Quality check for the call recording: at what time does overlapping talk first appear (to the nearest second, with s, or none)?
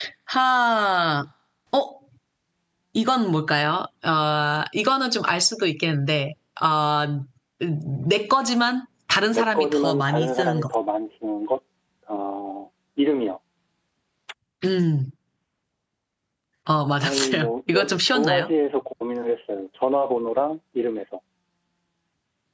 9 s